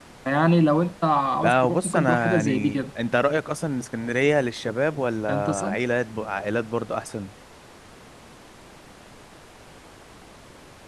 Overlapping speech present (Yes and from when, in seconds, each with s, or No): Yes, from 1.4 s